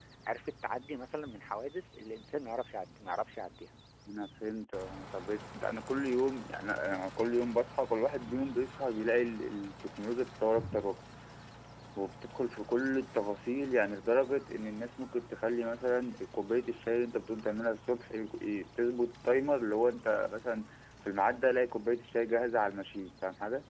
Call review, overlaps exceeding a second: none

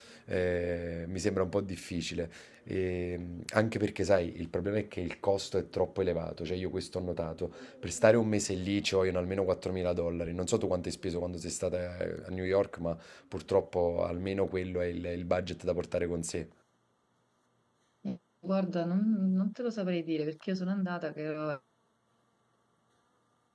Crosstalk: none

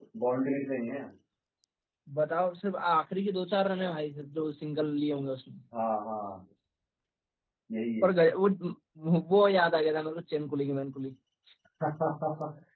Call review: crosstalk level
none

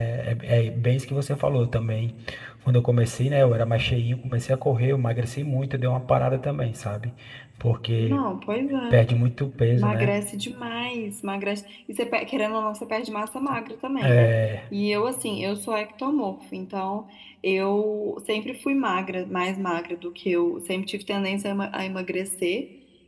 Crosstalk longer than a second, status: none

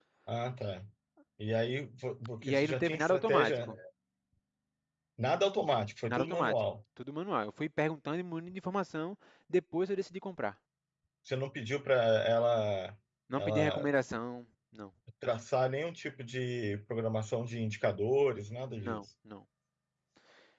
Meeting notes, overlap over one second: present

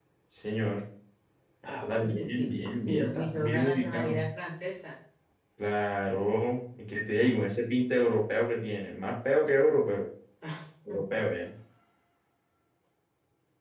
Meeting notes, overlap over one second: present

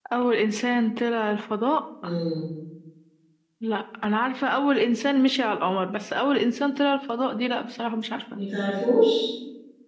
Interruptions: none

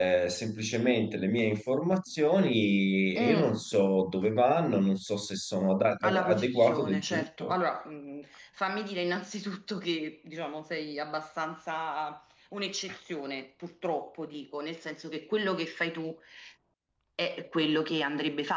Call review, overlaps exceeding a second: present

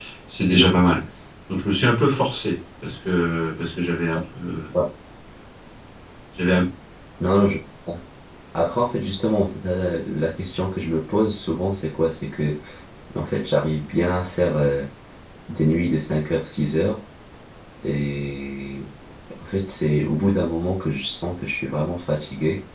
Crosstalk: none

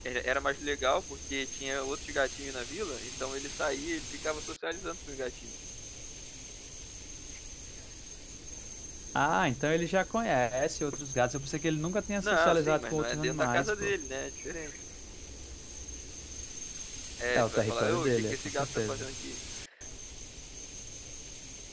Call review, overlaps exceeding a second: present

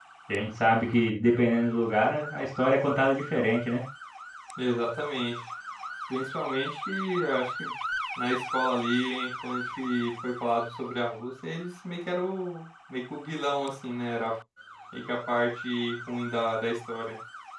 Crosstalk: none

